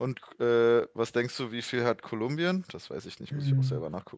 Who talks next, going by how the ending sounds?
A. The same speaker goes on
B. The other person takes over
B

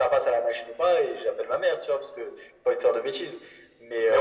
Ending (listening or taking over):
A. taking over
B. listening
B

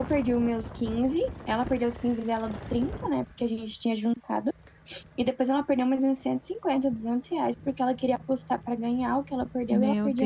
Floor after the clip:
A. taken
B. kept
A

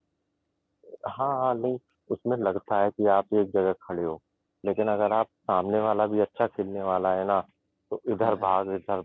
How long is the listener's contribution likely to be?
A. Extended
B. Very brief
B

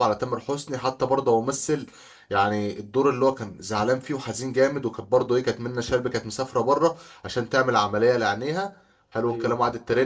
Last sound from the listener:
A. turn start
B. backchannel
B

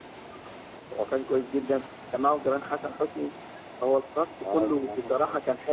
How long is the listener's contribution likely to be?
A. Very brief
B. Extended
B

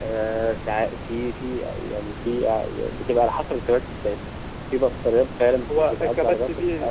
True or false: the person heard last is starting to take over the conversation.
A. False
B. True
B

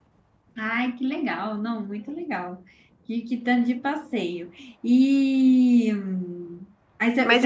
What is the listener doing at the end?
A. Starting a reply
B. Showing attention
A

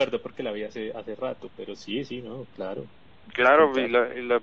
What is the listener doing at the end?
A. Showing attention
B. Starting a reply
B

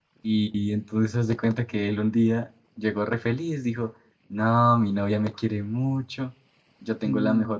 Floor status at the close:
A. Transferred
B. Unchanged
B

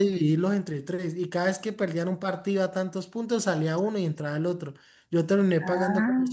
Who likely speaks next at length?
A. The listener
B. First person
B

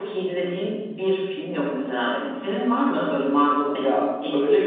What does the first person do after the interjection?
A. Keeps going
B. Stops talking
B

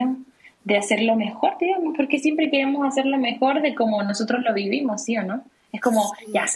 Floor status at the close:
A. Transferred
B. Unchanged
B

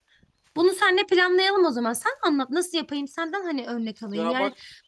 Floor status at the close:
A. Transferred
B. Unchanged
B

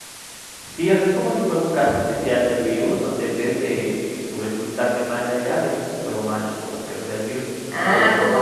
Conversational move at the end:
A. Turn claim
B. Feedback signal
A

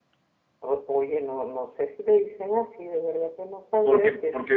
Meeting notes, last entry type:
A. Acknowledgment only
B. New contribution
B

